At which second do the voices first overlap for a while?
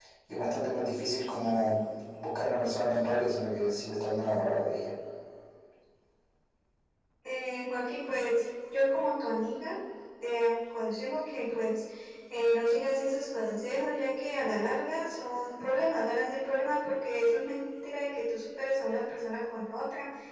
none

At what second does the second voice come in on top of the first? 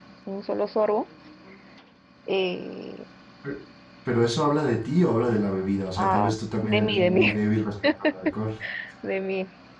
6 s

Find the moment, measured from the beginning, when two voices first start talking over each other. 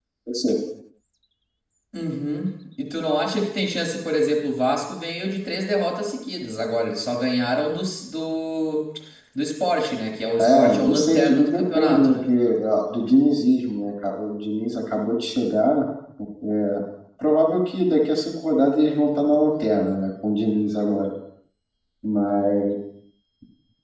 10 s

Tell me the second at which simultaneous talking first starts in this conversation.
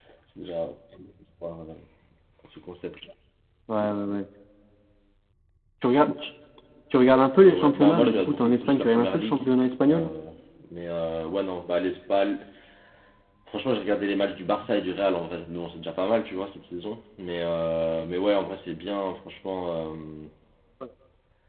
7 s

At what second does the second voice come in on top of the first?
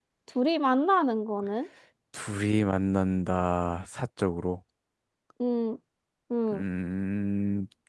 none

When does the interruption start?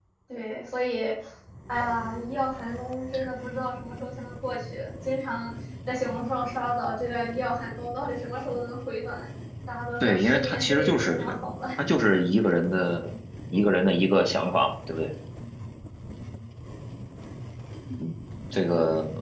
10 s

